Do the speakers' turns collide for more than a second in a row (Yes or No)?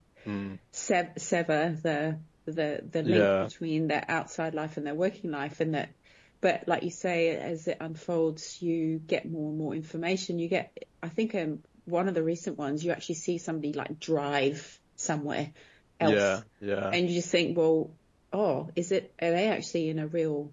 No